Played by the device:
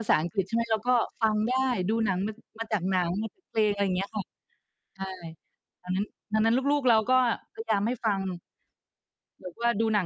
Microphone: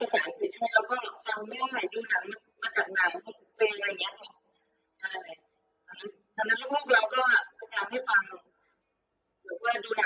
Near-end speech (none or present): none